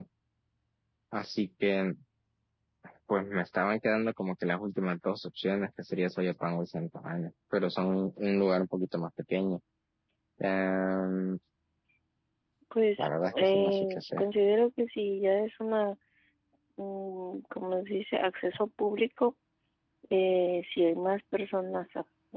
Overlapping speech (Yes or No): Yes